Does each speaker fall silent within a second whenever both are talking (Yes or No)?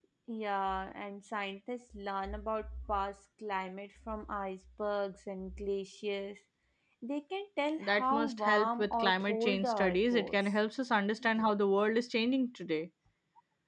No